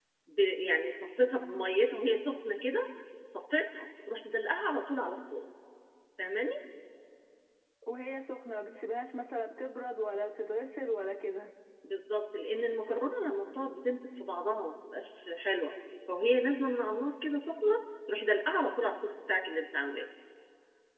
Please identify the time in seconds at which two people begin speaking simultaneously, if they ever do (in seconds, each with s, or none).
none